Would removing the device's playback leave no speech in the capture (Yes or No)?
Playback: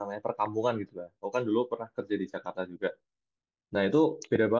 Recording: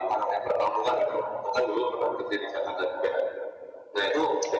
Yes